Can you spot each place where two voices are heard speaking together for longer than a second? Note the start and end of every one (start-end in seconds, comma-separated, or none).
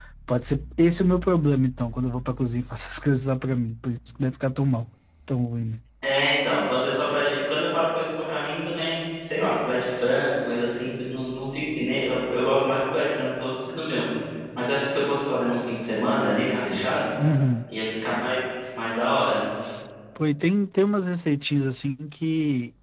none